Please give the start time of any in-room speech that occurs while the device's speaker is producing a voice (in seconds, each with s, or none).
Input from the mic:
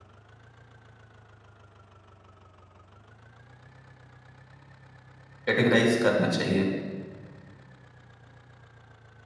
5.4 s